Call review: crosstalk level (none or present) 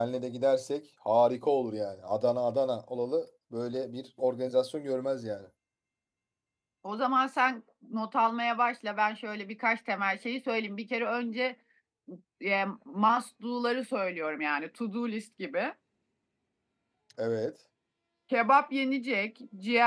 none